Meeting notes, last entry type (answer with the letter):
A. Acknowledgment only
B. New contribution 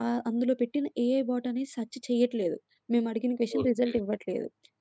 A